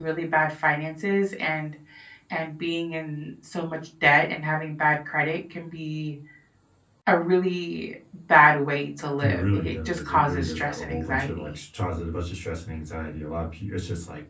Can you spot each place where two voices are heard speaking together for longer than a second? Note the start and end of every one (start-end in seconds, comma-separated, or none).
9.2-11.4